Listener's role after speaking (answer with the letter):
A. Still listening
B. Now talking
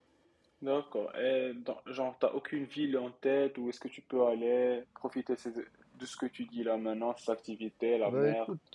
B